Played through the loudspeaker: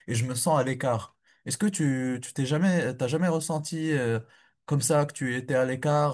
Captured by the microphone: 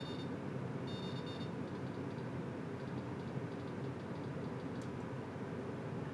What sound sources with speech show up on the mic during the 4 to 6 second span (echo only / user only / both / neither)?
neither